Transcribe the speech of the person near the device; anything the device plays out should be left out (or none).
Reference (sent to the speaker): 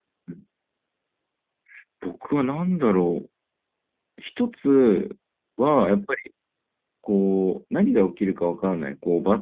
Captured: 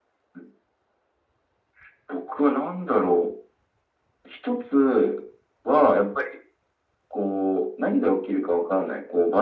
none